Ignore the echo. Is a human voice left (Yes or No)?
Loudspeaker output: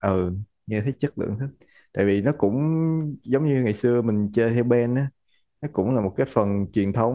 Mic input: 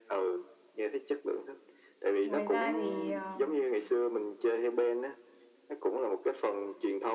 Yes